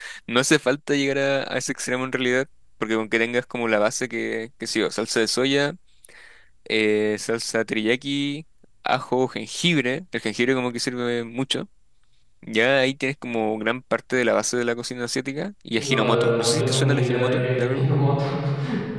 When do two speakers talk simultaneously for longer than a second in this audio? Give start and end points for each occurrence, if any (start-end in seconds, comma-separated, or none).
15.8-17.9